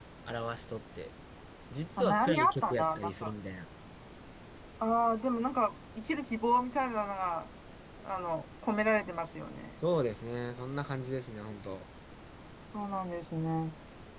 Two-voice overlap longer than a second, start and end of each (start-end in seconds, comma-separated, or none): 2.0-3.3